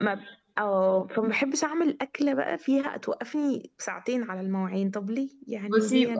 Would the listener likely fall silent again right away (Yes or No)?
No